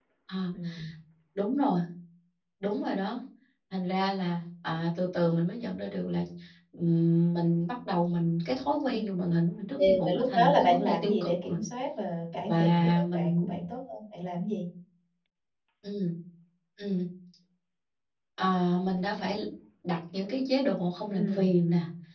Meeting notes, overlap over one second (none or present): present